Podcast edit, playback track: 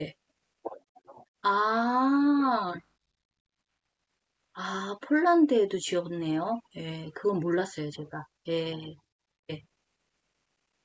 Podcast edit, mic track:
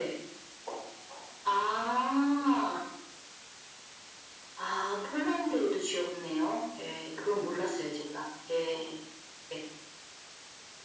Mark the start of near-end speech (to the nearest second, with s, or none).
none